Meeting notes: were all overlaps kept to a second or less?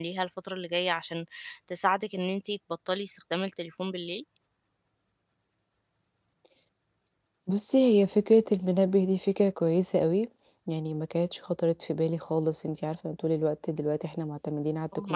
Yes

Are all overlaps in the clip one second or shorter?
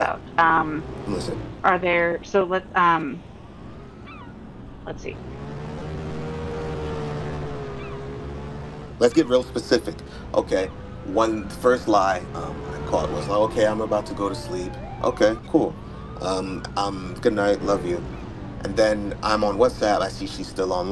Yes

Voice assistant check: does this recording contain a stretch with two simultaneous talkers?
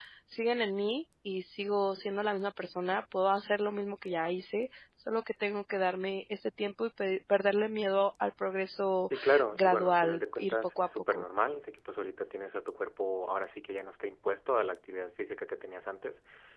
Yes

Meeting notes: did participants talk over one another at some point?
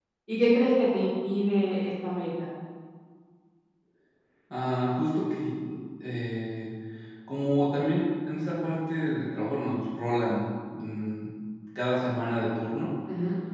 No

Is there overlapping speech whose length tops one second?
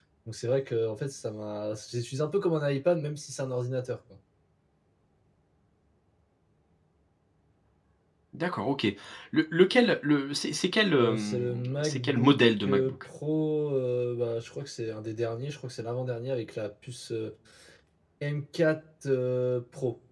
Yes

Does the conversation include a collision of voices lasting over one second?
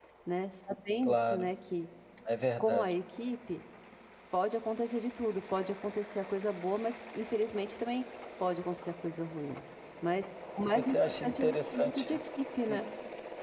Yes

